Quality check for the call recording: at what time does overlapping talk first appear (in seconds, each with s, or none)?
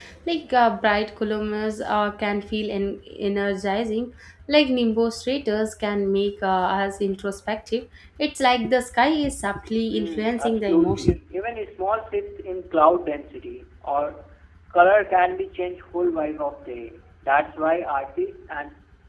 9.9 s